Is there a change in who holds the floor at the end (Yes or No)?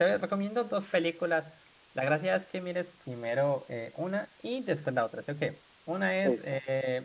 No